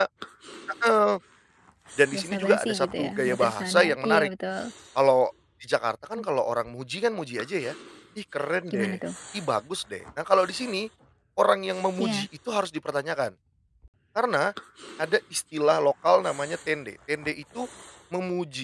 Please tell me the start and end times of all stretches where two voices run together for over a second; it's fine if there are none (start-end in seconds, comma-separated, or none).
2.1-4.3